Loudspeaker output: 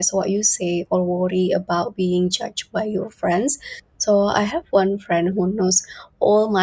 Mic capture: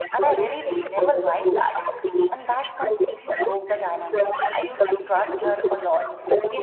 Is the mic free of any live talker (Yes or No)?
No